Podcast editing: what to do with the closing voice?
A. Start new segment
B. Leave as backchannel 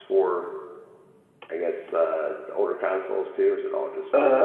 A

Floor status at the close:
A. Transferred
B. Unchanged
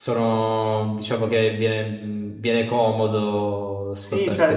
A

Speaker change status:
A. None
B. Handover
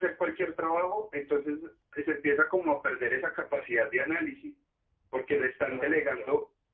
A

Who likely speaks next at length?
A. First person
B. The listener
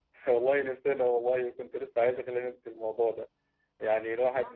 A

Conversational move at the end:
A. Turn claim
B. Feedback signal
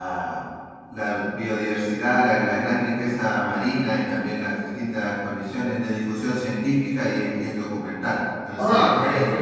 A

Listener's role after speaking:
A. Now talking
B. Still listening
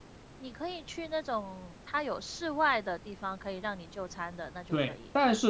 A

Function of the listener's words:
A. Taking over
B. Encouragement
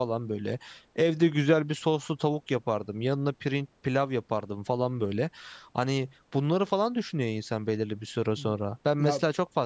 B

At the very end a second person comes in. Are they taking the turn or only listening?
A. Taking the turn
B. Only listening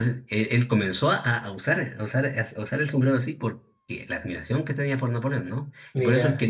B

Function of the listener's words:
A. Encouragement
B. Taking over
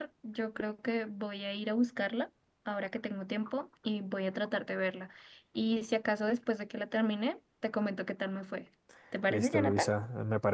B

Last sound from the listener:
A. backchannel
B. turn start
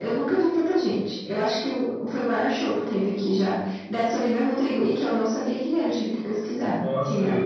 B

